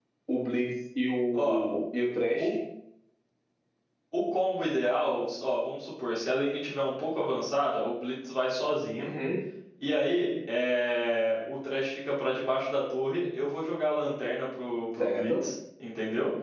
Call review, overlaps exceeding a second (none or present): none